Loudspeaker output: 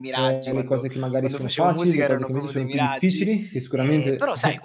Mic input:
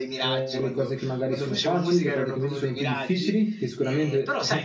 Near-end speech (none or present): none